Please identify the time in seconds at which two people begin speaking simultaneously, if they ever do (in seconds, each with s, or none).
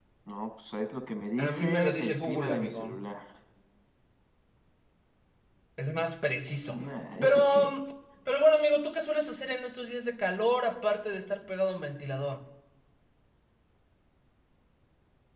1.4 s